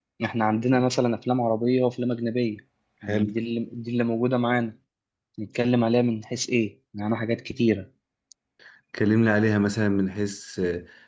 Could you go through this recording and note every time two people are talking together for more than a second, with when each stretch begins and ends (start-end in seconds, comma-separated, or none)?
none